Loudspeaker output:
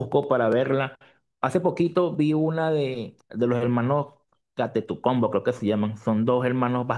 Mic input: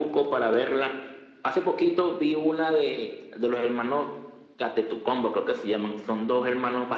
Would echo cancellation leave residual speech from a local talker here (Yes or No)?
No